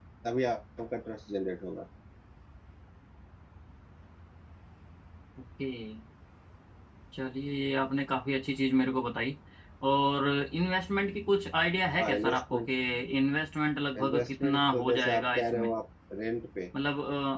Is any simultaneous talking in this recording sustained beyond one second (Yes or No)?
Yes